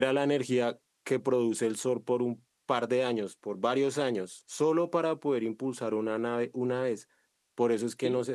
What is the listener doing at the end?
listening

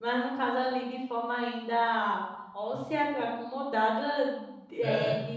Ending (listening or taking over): listening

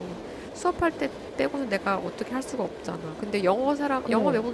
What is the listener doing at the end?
listening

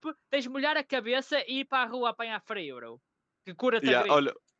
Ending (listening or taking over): taking over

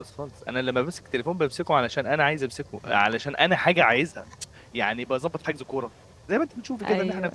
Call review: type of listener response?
listening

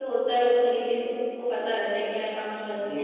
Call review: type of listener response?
taking over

